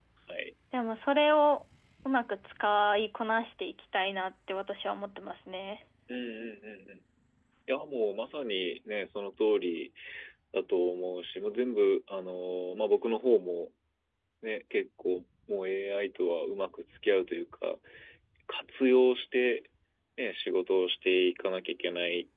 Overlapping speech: No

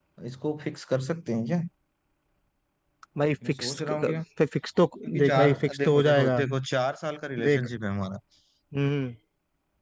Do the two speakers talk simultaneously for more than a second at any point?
Yes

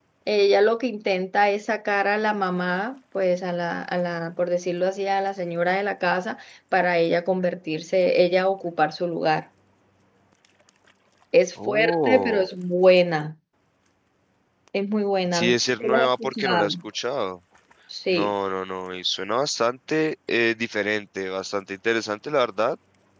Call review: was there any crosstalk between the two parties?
Yes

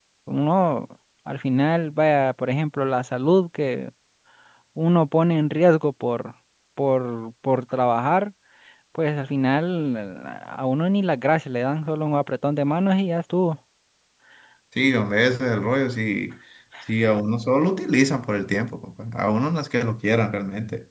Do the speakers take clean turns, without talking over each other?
Yes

